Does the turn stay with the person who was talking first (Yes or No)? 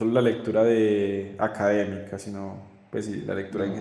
No